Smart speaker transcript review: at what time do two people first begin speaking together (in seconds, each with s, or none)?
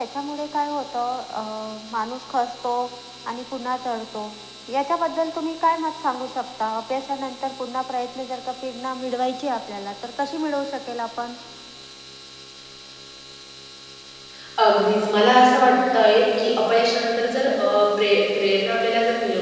none